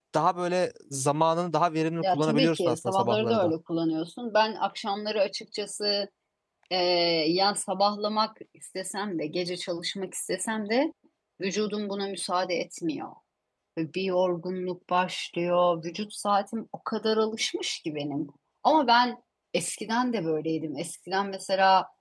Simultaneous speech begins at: 2.0 s

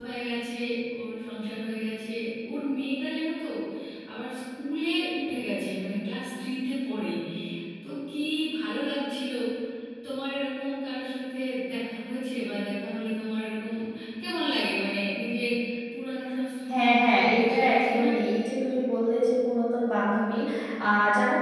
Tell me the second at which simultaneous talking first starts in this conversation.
16.7 s

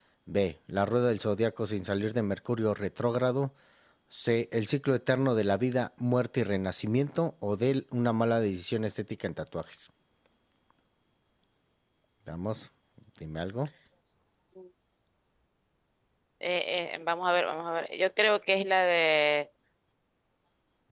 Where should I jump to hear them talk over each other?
none

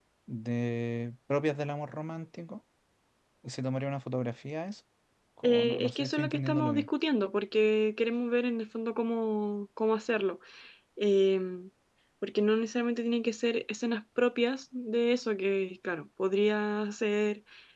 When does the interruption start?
5.4 s

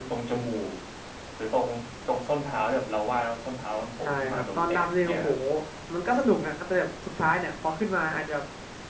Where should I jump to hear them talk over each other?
4.0 s

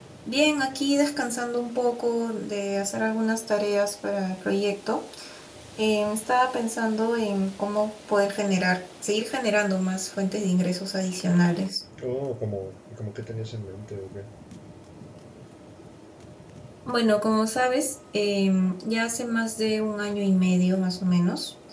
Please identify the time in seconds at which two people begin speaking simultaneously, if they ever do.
none

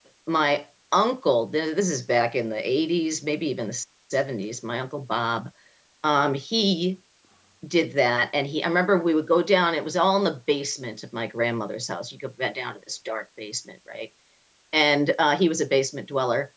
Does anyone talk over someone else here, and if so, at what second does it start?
none

